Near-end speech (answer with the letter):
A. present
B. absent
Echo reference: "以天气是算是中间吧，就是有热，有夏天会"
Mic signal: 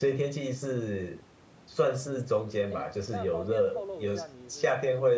A